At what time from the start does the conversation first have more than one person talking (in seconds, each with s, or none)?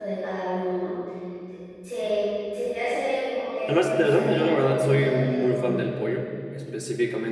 3.7 s